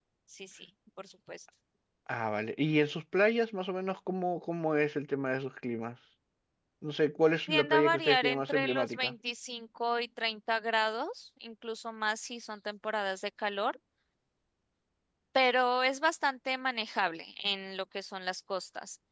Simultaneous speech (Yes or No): Yes